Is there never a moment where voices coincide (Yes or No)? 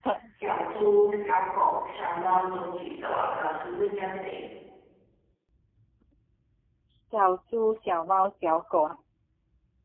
Yes